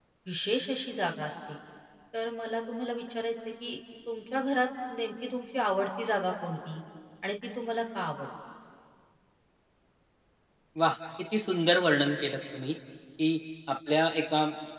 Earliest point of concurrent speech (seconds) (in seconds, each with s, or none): none